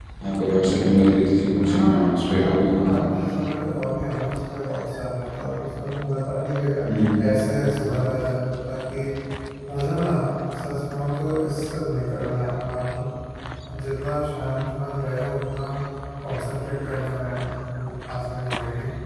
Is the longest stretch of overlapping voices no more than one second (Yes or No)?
Yes